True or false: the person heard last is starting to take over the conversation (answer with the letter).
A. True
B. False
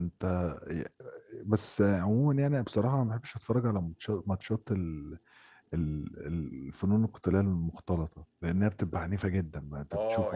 A